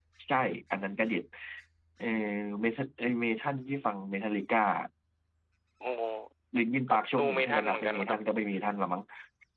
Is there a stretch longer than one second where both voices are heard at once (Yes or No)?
Yes